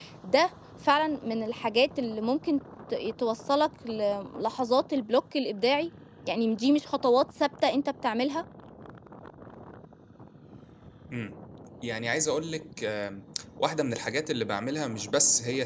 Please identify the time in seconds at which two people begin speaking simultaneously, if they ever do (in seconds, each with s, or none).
none